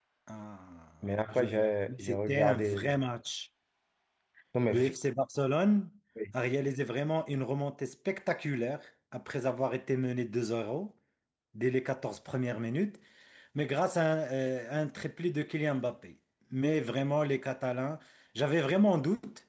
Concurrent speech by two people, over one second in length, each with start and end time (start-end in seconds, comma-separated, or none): 1.3-3.0